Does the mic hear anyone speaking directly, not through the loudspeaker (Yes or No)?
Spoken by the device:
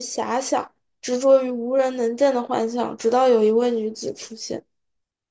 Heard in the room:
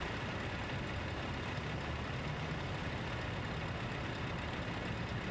No